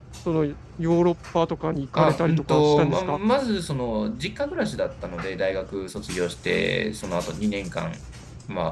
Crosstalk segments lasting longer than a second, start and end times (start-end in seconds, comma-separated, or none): 2.0-3.2